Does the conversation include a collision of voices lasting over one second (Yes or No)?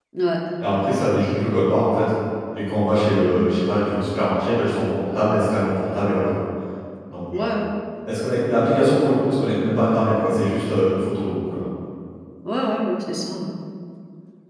No